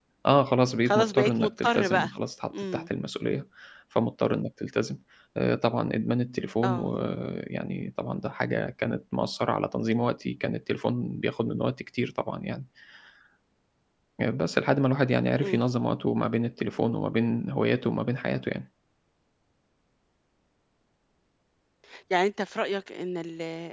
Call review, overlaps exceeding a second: present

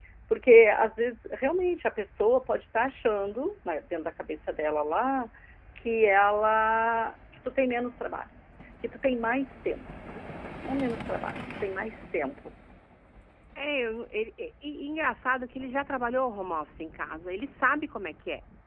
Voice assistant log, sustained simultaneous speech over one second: none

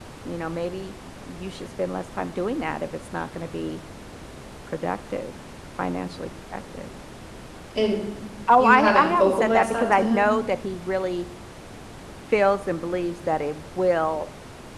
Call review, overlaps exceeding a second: present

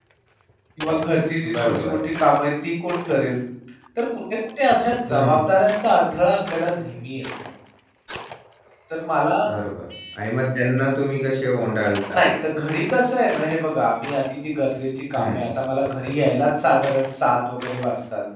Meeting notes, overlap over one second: none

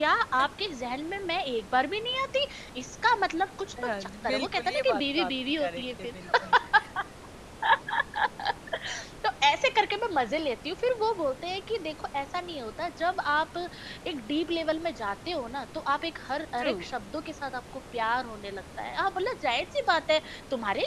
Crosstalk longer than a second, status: present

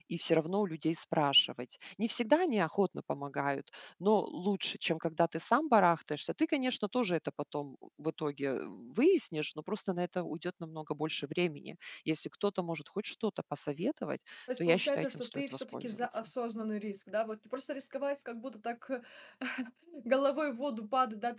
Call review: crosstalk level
present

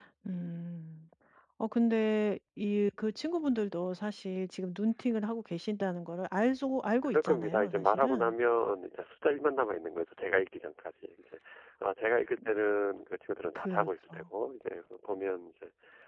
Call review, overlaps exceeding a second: present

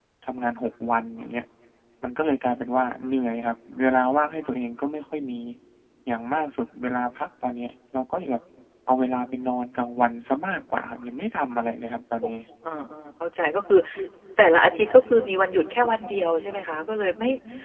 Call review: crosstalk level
none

